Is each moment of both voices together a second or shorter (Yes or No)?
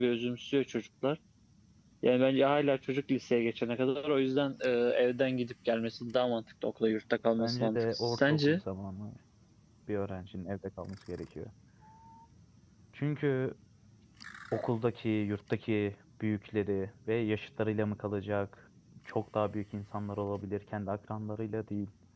No